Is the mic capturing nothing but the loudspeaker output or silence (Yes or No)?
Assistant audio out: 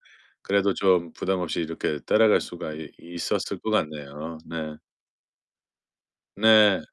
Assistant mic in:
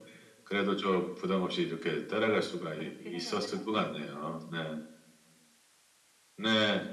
No